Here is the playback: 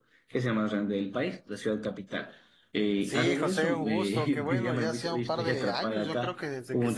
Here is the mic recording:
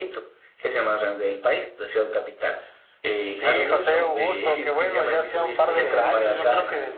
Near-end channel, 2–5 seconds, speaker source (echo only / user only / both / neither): echo only